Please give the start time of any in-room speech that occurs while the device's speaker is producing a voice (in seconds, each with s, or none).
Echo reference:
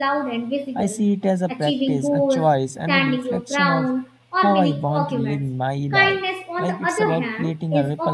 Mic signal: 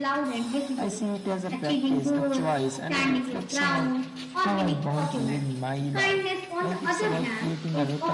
none